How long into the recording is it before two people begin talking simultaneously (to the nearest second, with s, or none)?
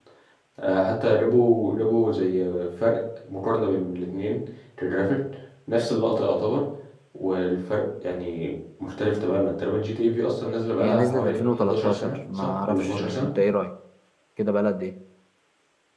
11 s